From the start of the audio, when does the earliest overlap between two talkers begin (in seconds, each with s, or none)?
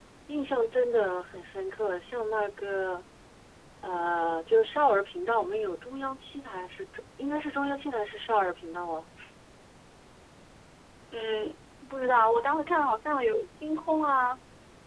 none